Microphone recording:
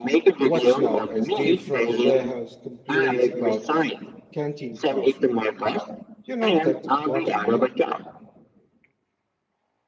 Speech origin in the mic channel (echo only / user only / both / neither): both